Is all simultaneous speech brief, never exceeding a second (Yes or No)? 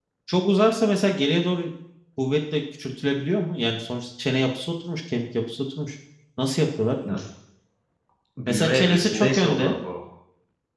No